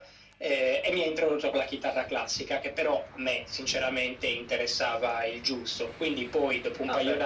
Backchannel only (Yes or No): No